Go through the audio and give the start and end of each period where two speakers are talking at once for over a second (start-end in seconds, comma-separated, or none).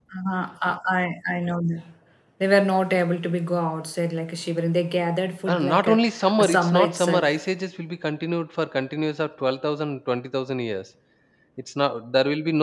5.5-7.3